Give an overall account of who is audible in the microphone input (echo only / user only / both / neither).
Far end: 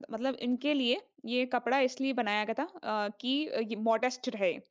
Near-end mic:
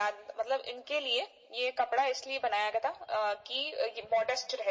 echo only